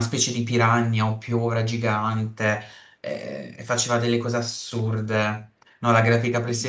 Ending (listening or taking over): listening